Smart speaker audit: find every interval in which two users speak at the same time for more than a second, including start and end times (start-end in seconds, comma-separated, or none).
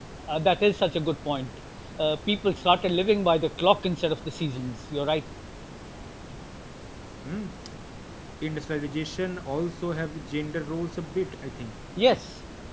none